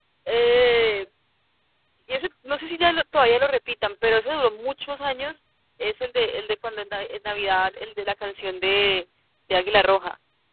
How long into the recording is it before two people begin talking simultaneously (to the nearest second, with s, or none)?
none